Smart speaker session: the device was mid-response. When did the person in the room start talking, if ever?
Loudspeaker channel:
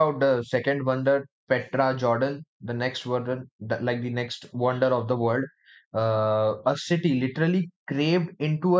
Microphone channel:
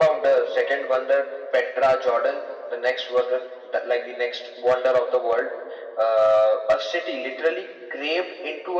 none

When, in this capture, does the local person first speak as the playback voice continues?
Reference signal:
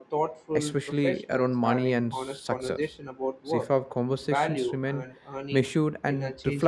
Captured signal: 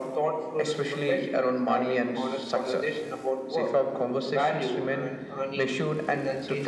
none

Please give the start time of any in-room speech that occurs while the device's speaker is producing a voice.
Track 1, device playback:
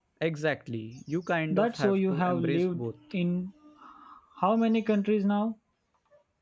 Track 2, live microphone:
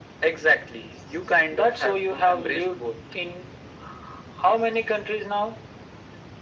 none

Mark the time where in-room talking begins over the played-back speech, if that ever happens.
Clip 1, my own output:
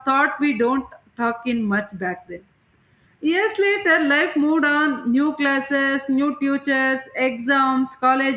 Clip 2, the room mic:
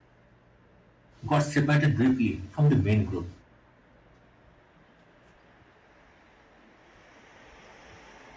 1.2 s

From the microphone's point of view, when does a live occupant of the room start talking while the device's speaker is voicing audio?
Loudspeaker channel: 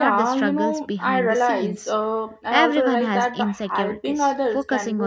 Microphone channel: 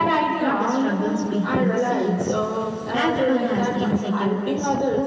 none

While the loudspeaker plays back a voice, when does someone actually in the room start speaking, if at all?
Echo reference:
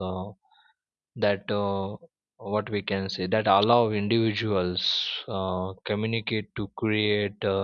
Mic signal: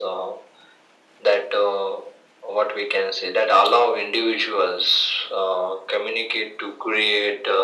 none

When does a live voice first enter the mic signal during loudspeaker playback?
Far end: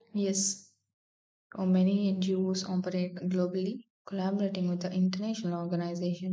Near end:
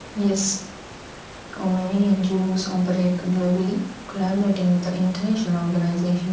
none

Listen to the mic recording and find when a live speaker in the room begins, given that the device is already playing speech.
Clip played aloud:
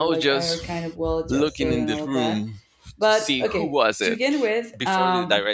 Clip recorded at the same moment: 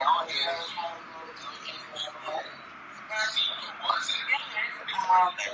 none

